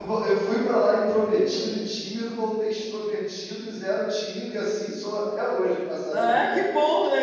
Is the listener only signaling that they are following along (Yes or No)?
No